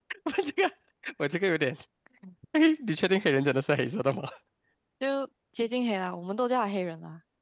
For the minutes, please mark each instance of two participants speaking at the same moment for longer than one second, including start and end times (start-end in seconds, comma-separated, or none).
none